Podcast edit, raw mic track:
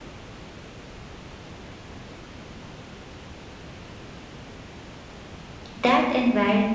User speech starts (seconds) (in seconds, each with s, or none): 5.7 s